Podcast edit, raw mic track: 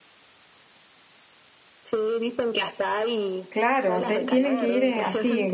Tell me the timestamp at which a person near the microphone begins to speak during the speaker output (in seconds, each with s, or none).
3.5 s